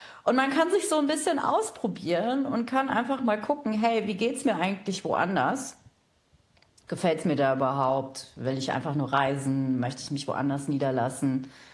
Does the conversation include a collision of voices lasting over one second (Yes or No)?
No